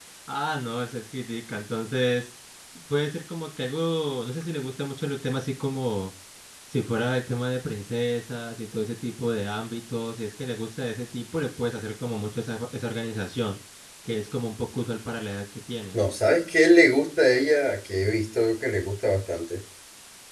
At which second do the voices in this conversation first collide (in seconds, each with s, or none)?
none